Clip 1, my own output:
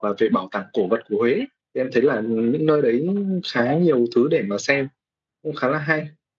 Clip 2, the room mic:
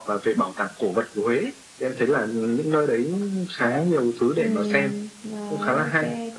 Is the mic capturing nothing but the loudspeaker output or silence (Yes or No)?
No